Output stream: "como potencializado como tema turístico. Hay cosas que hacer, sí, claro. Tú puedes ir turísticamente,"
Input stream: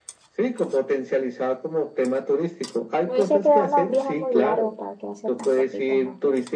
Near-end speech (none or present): present